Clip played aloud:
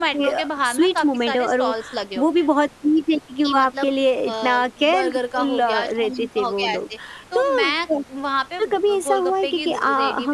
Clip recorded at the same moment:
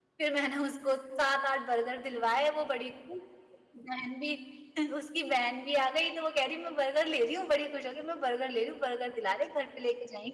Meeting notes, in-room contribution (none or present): present